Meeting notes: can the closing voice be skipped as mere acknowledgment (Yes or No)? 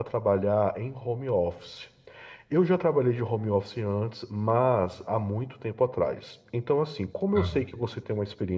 Yes